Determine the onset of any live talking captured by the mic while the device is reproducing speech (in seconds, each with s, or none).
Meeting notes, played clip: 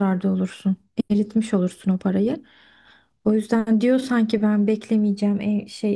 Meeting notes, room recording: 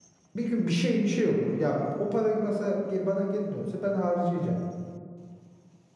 0.3 s